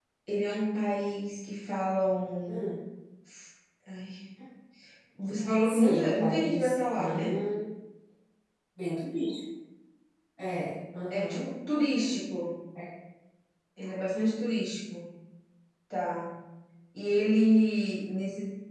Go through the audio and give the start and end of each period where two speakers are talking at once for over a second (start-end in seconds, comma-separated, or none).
5.6-7.3